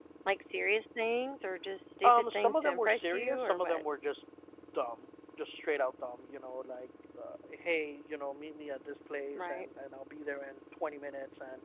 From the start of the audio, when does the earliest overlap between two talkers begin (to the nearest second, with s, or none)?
2 s